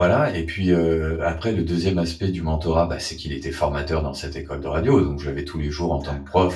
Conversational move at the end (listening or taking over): listening